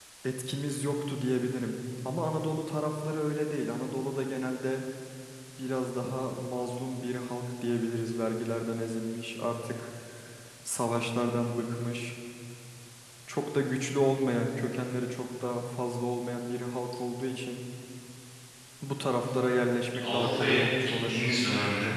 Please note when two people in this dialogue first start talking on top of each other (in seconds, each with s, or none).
19.9 s